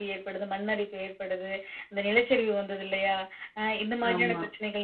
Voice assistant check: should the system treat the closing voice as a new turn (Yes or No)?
No